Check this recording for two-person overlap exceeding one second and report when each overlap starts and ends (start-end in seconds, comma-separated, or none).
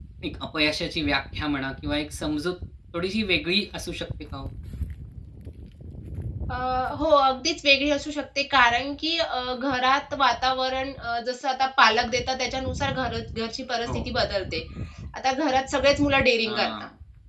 none